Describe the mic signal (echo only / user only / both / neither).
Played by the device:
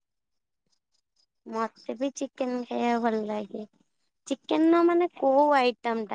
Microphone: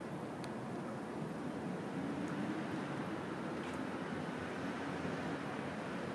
neither